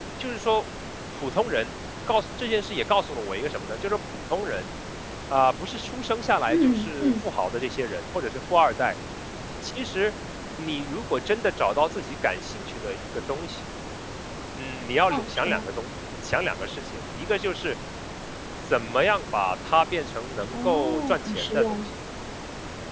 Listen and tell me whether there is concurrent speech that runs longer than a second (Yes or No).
Yes